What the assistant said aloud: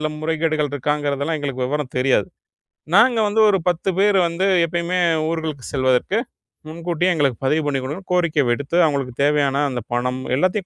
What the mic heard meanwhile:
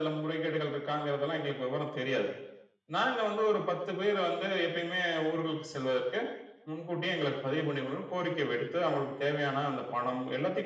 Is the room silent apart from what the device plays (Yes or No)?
Yes